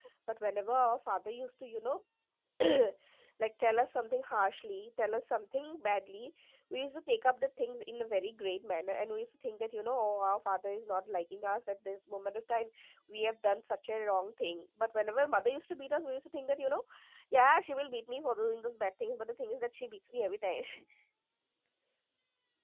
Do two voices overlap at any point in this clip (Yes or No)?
No